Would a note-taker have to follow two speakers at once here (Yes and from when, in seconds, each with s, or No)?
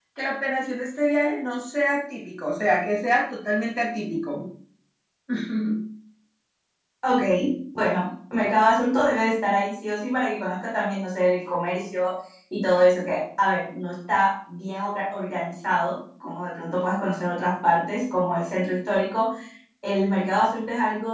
No